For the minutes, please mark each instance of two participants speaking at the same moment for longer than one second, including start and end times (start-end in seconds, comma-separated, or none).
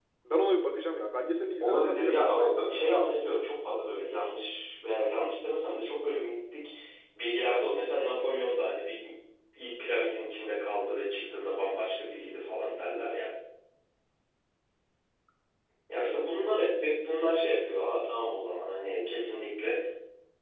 1.6-3.4